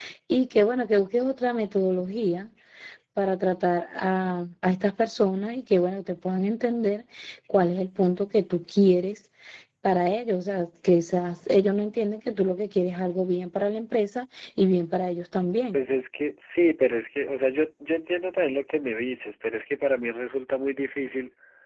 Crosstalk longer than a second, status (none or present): none